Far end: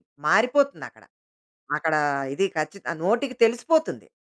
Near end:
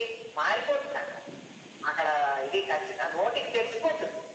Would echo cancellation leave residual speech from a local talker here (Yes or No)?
No